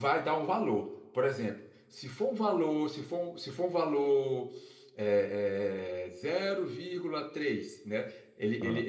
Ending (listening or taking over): listening